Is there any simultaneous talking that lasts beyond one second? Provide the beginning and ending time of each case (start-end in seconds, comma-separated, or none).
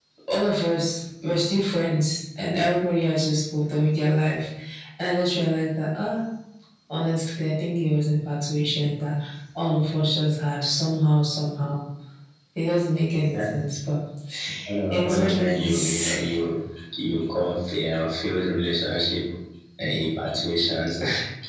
14.9-16.1